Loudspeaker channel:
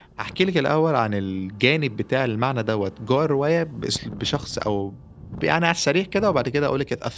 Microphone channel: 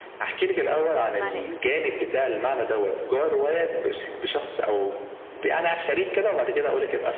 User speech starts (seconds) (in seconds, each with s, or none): 0.5 s